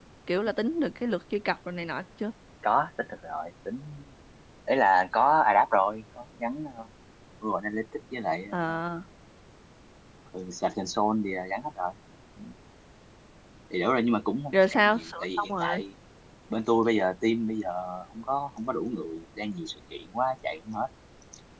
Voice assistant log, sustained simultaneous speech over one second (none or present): present